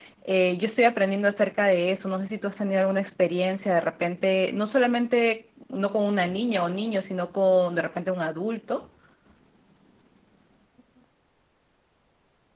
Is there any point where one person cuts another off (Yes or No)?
No